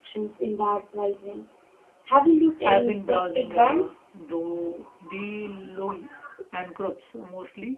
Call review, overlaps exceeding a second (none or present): present